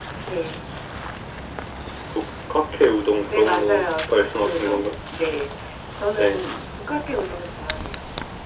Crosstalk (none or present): present